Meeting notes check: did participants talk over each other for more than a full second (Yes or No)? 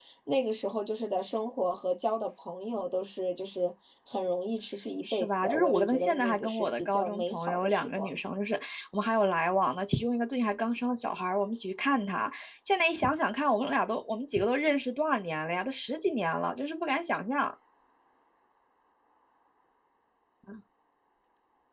Yes